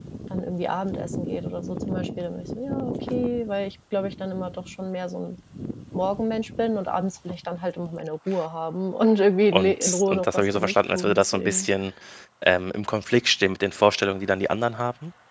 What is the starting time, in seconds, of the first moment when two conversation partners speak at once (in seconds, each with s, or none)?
9.5 s